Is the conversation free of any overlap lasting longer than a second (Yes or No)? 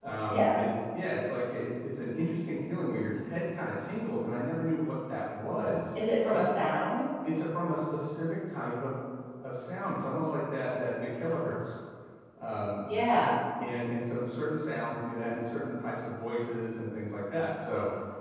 Yes